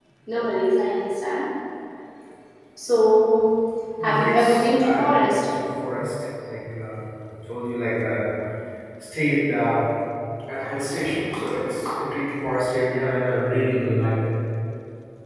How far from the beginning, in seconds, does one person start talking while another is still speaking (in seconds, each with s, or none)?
4.0 s